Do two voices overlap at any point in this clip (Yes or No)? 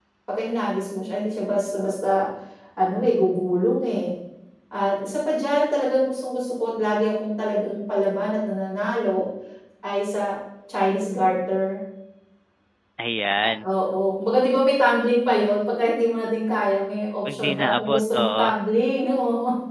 Yes